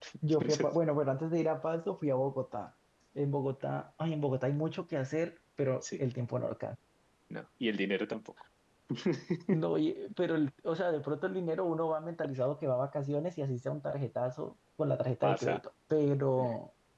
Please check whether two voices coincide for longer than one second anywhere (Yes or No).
No